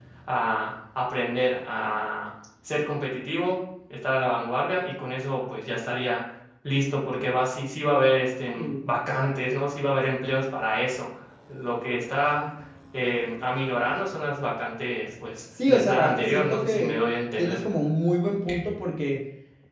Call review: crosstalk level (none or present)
present